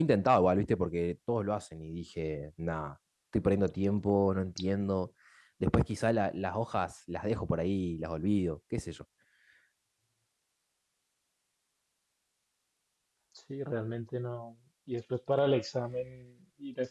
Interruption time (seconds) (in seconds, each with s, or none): none